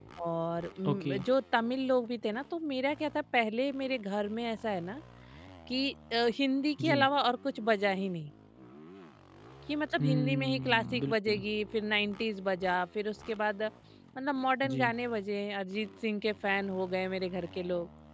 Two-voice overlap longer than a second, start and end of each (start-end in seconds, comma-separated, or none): 10.0-11.4